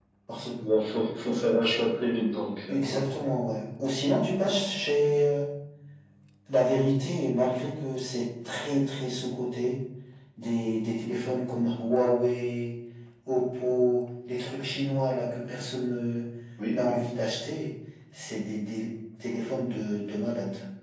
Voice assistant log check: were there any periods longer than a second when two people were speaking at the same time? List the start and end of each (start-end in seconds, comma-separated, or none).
none